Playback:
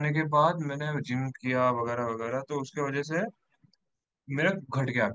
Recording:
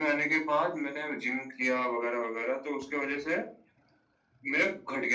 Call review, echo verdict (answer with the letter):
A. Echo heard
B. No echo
A